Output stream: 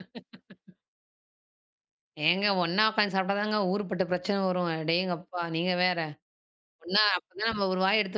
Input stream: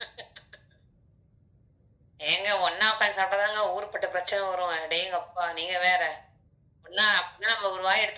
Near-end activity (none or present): none